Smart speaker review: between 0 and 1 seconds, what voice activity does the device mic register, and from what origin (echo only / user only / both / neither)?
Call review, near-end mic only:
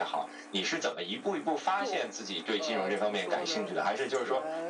echo only